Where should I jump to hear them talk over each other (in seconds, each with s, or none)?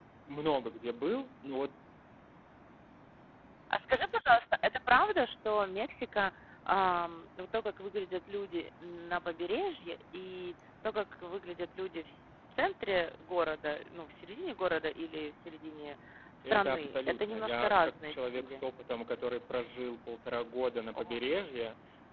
16.5 s